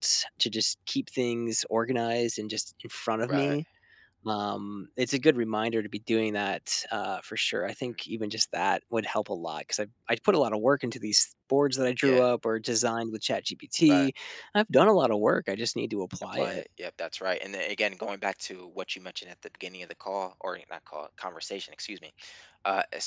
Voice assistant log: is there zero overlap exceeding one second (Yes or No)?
Yes